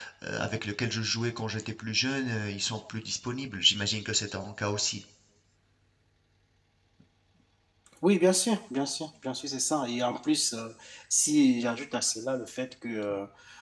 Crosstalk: none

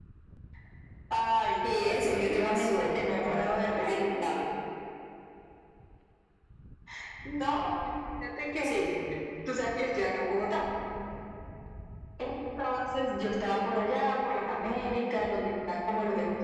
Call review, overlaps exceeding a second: present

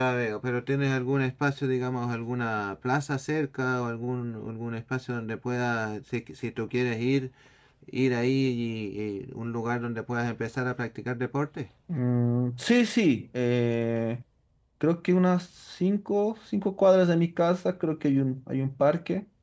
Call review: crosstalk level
none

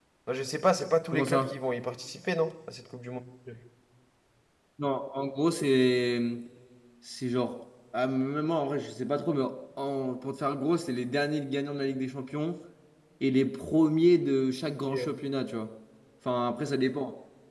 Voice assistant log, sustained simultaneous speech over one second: none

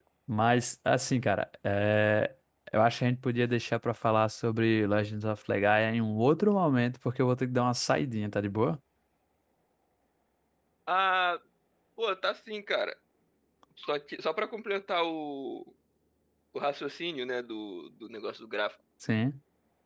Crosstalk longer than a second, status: none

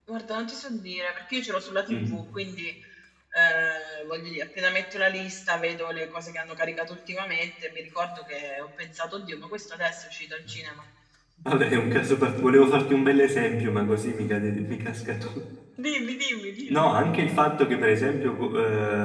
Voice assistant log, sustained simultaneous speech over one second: none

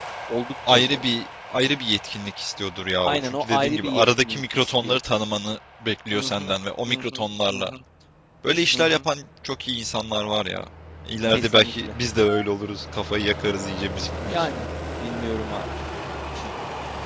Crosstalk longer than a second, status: present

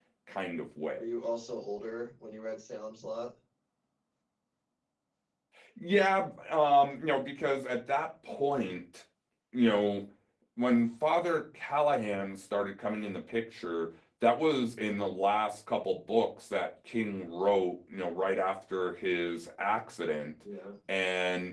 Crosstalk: none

